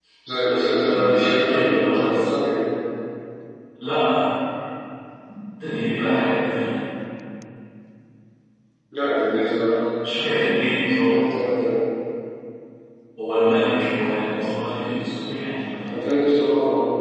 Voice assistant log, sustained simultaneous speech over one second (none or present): present